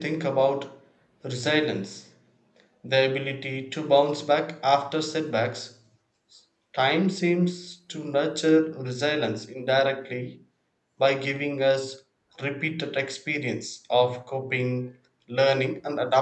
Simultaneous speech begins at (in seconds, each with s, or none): none